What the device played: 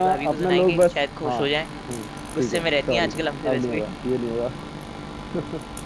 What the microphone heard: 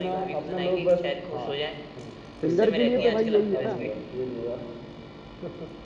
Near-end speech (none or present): present